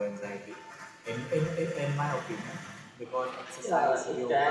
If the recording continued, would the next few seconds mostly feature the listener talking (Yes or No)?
Yes